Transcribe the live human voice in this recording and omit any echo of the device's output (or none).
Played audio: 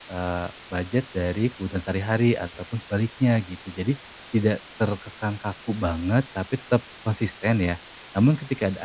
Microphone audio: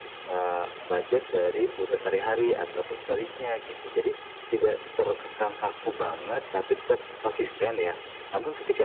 Iya,